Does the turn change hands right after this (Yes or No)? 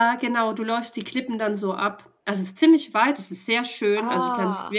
No